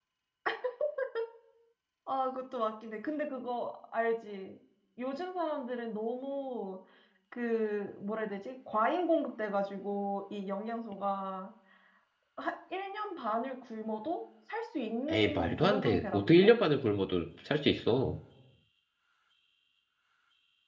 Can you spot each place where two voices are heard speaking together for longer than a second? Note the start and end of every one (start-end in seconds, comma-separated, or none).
15.1-16.5